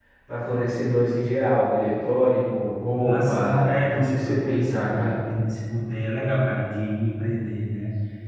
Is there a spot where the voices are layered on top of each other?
Yes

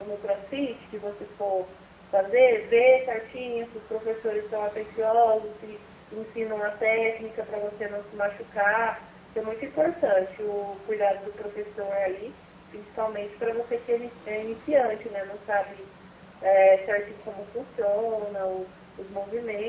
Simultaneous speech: No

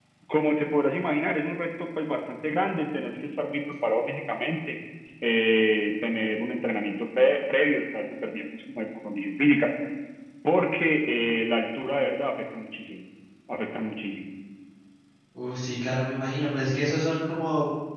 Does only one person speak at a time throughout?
Yes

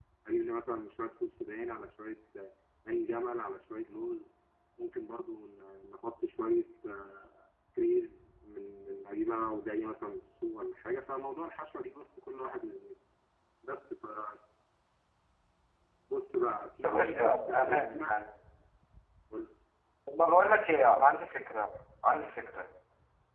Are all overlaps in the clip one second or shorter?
No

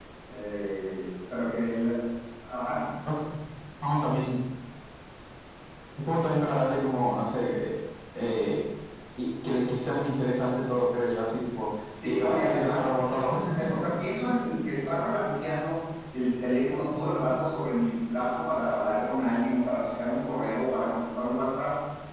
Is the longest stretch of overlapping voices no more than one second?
No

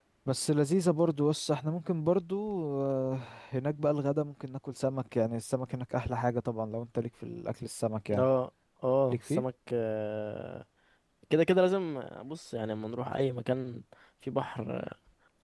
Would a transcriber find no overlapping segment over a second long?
Yes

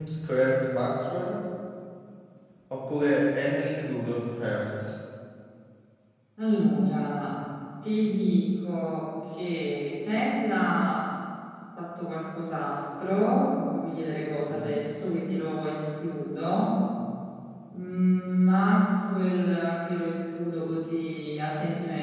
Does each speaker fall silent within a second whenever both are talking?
Yes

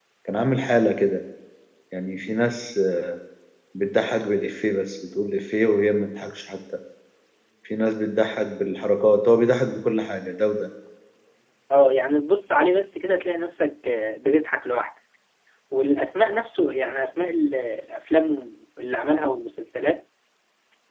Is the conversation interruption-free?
Yes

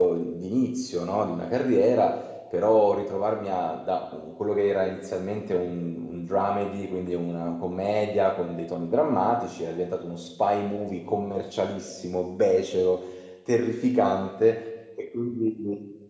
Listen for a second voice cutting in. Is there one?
No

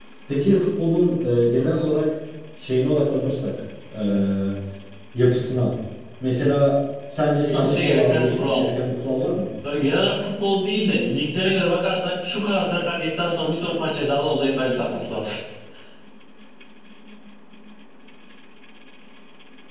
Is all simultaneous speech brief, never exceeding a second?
No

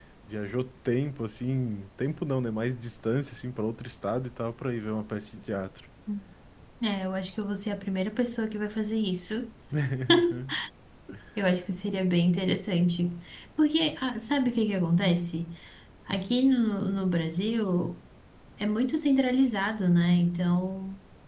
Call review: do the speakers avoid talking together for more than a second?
Yes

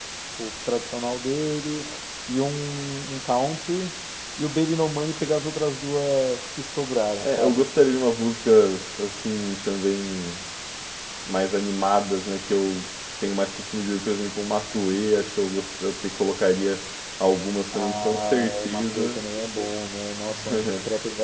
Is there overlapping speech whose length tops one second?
Yes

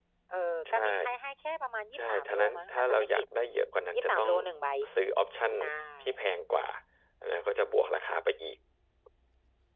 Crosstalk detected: Yes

